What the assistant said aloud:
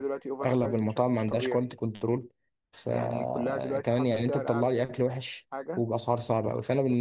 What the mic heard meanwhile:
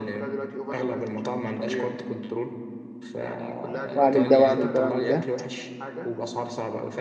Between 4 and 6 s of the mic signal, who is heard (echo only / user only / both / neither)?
both